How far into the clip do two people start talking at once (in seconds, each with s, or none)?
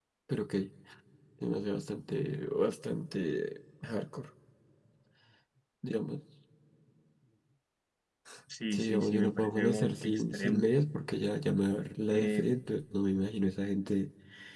8.7 s